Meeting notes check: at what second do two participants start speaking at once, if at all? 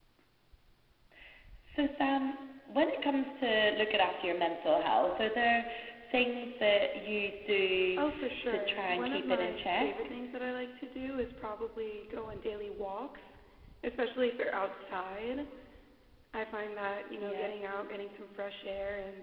8.5 s

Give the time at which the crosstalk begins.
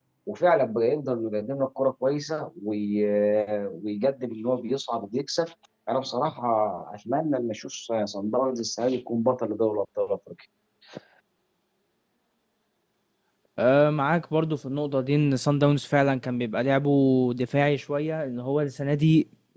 none

